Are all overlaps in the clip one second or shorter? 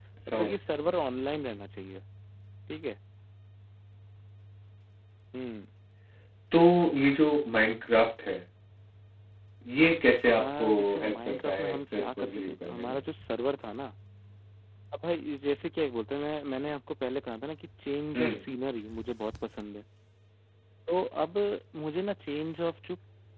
No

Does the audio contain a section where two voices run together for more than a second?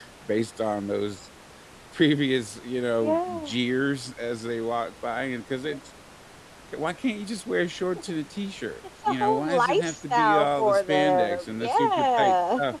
Yes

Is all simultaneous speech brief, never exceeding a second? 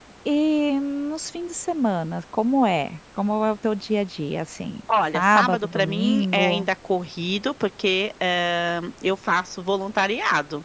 No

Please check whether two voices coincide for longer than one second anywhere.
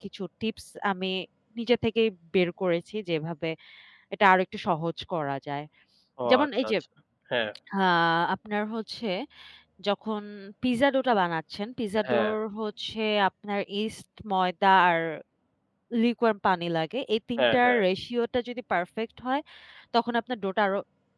No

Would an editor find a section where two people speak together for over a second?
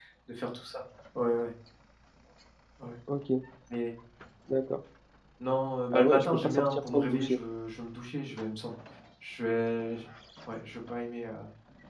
Yes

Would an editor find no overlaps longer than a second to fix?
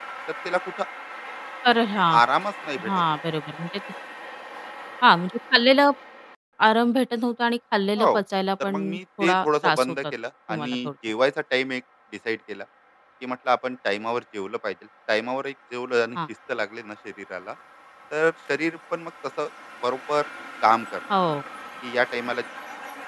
No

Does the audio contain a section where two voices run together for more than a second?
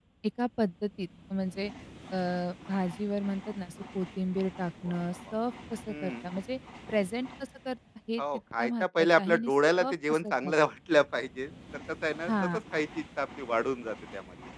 Yes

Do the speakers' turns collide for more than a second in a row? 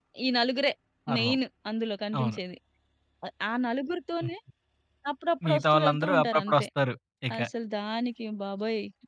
Yes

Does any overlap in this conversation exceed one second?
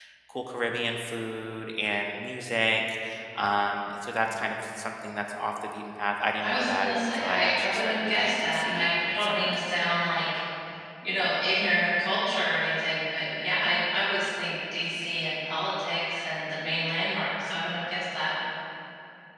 Yes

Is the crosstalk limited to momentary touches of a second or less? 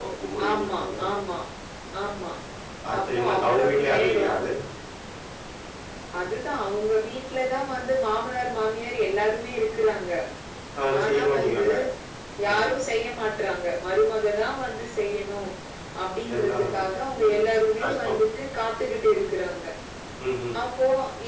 No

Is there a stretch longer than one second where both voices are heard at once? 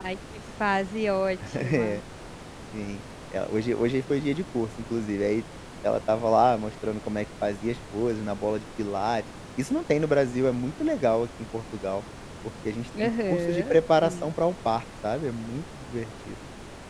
Yes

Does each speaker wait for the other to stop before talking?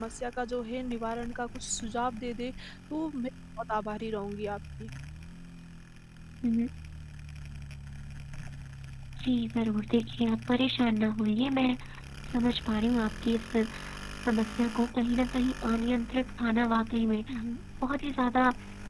Yes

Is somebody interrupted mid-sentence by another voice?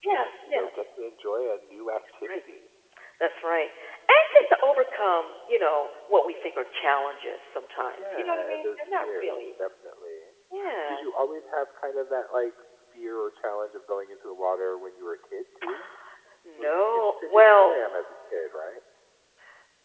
Yes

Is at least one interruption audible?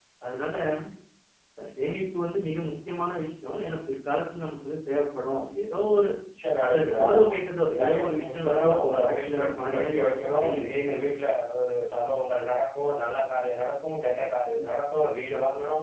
Yes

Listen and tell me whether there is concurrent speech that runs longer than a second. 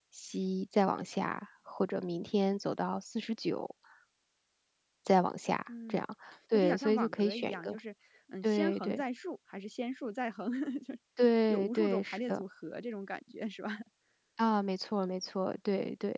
Yes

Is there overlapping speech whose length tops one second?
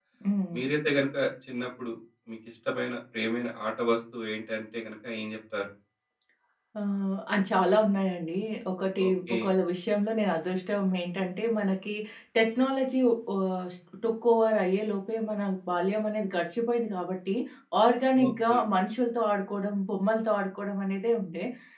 No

